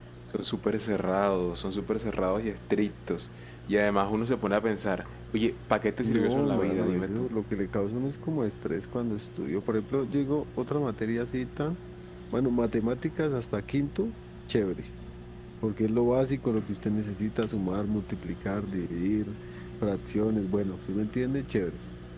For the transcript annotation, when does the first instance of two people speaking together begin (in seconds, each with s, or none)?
6.0 s